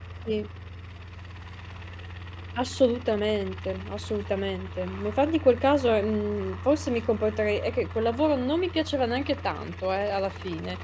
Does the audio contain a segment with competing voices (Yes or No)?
No